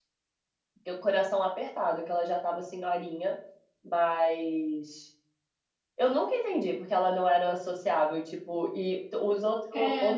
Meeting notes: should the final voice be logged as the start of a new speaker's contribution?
No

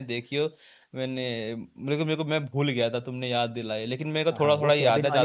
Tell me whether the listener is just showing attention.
No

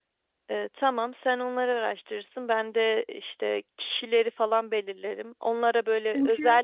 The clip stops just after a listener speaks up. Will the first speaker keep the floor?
Yes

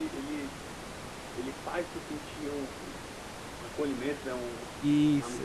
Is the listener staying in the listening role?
No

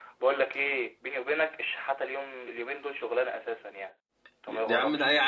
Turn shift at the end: Yes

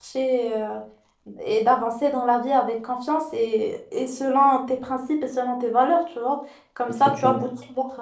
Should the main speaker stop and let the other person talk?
No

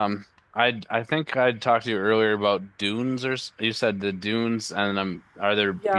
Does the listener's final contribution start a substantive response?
Yes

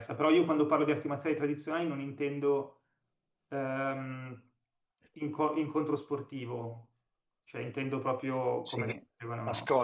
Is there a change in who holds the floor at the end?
Yes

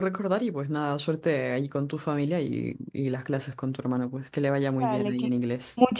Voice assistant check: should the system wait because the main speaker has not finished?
No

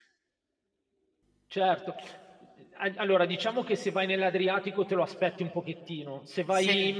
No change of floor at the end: Yes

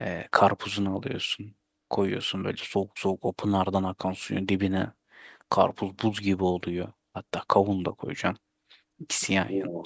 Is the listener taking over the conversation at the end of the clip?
No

